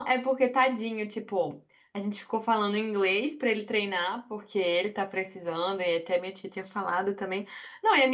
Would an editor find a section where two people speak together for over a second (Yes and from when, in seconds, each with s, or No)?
No